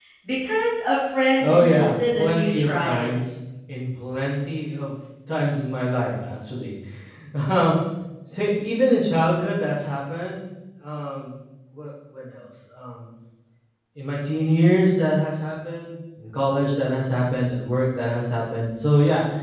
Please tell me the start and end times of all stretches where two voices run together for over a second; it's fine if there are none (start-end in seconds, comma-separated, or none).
1.4-3.1